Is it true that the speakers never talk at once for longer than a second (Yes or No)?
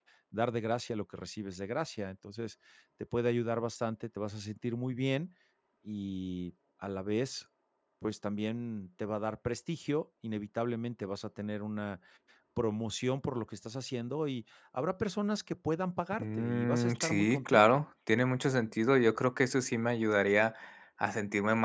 No